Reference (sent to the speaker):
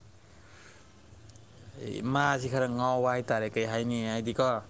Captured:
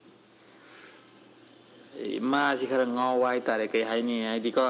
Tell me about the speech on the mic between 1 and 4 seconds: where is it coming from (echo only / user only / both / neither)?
echo only